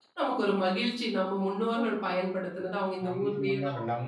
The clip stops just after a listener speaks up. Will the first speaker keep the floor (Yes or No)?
No